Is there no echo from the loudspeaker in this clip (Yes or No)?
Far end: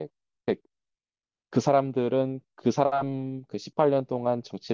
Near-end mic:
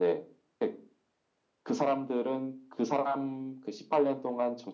No